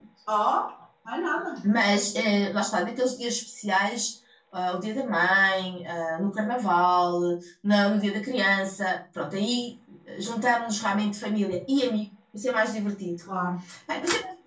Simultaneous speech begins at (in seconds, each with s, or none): none